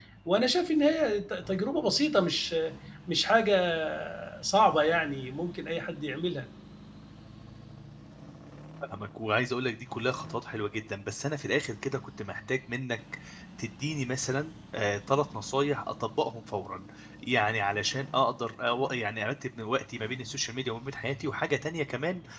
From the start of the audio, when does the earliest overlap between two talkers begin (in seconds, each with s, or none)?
none